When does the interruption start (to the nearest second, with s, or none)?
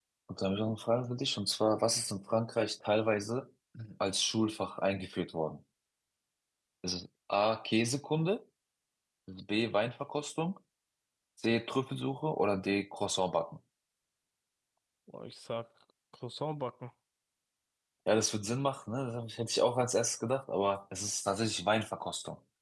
none